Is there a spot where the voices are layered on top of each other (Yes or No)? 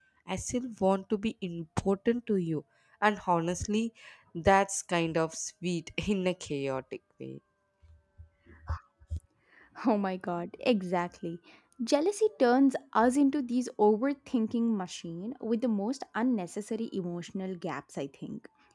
No